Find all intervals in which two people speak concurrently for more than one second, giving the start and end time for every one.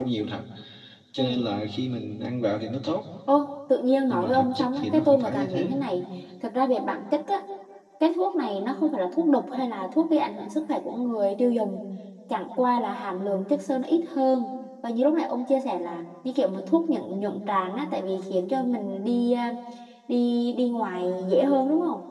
4.1-5.8

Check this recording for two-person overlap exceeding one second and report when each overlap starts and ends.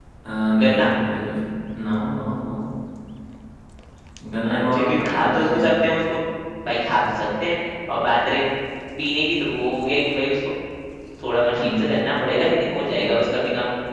4.4-5.6

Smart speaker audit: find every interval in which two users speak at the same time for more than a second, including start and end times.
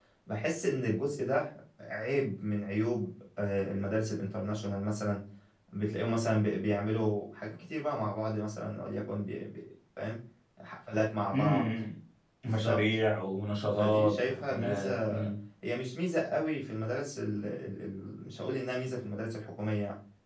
13.8-15.2

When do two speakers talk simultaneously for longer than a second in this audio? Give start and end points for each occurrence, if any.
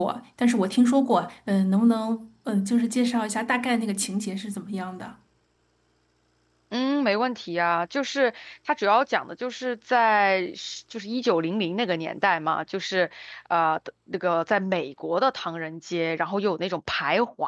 none

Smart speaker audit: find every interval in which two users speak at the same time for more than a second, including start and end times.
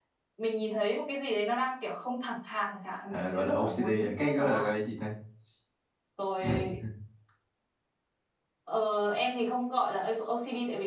3.1-4.7

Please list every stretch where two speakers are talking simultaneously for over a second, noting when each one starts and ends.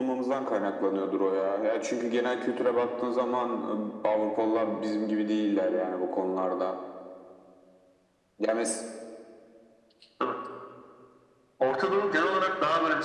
none

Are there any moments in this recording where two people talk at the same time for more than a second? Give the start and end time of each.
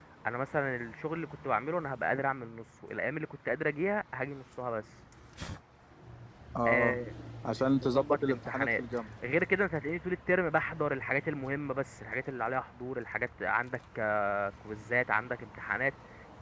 7.6-8.8

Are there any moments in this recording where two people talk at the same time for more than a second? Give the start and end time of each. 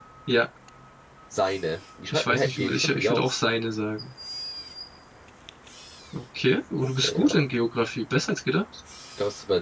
2.1-3.4

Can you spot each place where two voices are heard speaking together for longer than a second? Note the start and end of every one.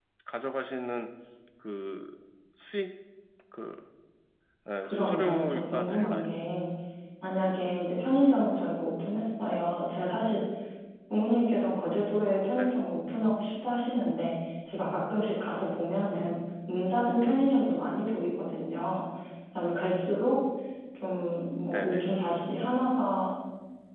4.8-6.3

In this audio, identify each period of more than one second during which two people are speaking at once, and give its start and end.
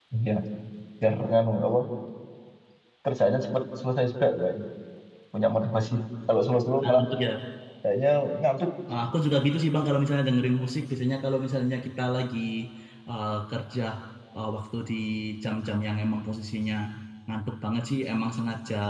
none

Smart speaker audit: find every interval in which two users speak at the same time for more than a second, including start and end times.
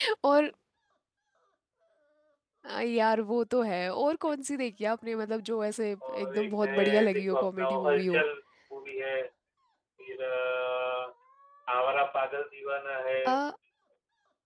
6.1-8.2

